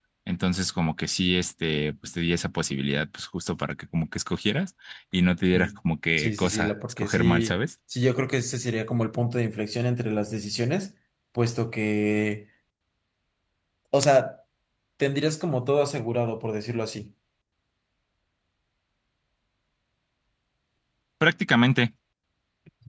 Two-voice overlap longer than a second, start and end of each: 6.2-7.6

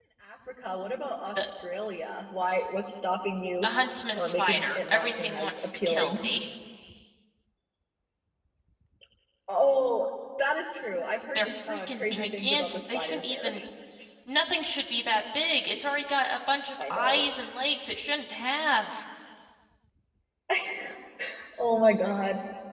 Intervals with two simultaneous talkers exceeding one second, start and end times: 4.2-6.2, 11.3-13.5

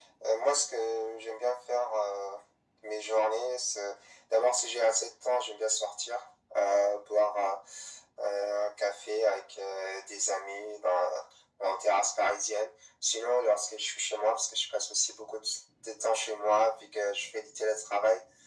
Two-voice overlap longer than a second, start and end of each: none

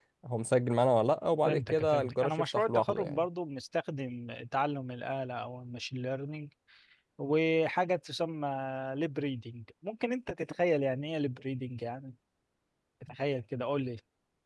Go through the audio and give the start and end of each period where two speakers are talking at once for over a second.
1.4-3.2

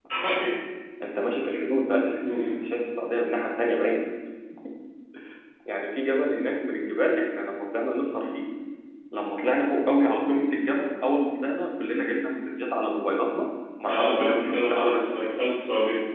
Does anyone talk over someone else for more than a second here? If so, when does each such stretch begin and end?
13.9-15.3

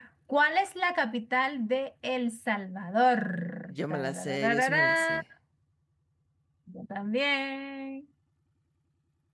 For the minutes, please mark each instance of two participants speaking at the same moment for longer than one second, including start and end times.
3.7-5.2

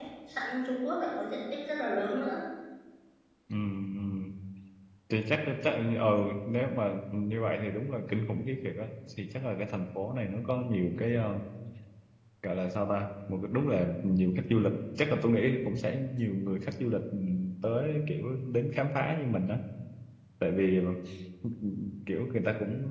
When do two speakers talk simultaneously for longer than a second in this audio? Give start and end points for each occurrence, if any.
none

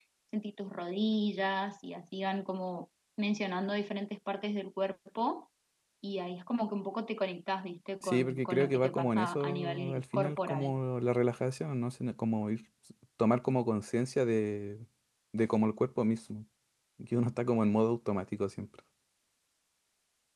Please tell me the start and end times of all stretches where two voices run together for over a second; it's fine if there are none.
8.0-10.7

